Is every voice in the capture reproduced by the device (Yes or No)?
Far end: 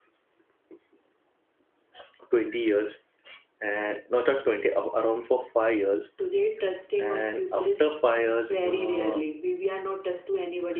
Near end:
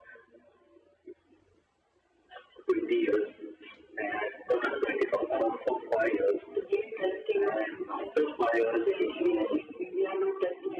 Yes